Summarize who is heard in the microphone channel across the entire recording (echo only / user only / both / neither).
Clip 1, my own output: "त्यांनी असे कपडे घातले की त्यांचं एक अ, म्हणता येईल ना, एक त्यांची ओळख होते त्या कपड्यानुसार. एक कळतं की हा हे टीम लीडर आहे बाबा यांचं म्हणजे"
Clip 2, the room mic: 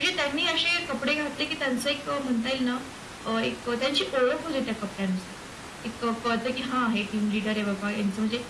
echo only